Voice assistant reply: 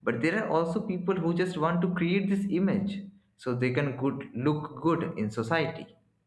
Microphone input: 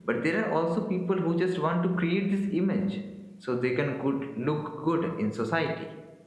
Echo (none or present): present